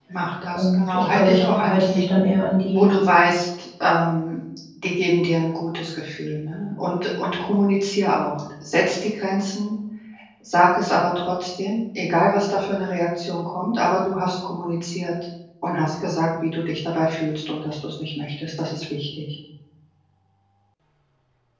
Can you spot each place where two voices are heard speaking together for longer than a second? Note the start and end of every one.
0.5-2.0

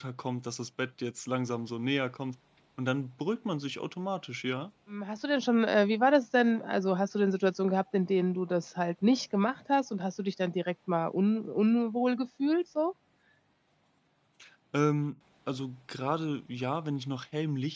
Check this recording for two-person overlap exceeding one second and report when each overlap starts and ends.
none

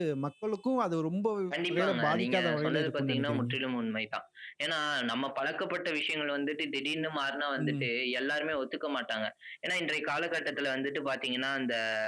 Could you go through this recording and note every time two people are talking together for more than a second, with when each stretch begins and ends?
1.7-3.5

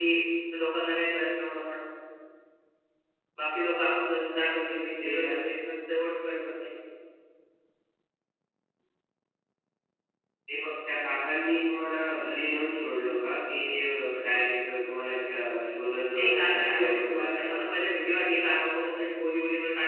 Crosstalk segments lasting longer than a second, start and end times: 16.2-17.8

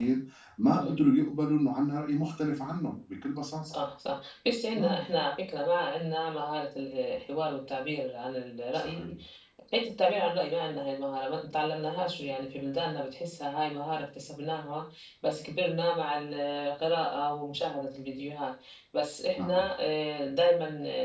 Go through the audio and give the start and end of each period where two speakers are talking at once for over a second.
none

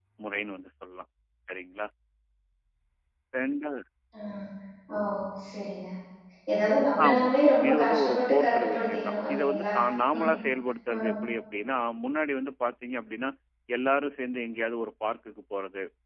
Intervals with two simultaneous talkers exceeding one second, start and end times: 7.7-9.7

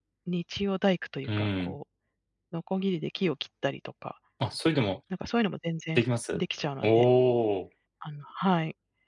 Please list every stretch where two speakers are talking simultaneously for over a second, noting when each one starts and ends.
none

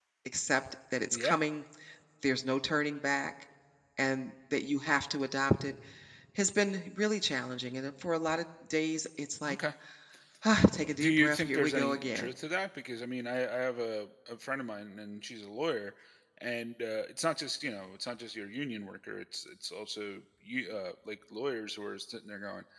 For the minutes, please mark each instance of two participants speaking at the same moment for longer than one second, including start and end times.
11.0-12.3

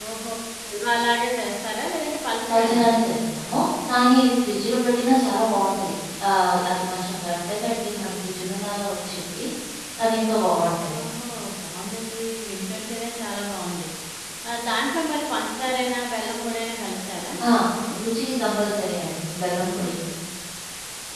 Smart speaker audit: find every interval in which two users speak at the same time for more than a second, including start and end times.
none

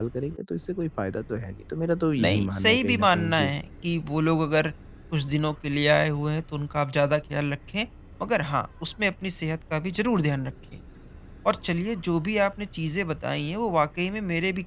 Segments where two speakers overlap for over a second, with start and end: 2.2-3.5

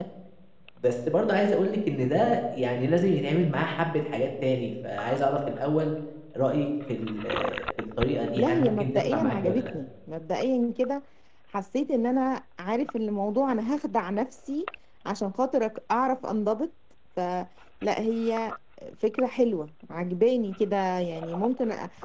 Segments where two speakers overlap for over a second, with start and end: 8.4-9.7

